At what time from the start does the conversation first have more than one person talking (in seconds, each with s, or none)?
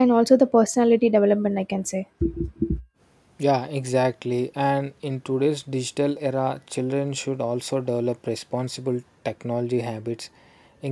none